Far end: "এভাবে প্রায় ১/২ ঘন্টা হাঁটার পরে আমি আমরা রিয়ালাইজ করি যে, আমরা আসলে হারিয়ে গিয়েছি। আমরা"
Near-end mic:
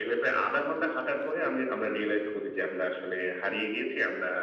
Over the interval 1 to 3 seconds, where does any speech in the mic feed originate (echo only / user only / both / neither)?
echo only